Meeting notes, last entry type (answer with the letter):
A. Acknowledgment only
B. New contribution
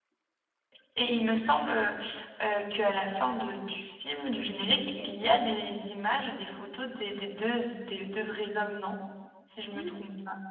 B